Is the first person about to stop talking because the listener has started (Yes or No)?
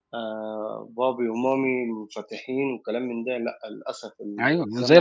Yes